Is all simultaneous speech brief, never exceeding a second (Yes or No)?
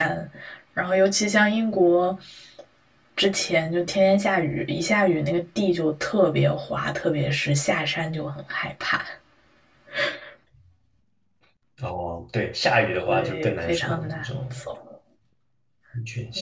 No